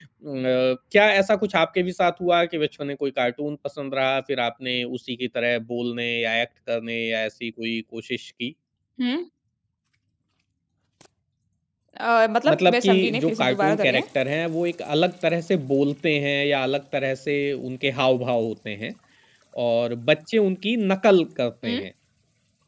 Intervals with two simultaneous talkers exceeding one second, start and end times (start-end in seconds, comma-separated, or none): 12.5-14.0